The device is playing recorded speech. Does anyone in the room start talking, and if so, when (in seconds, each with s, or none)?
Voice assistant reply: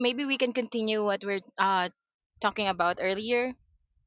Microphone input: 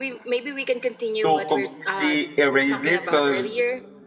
1.2 s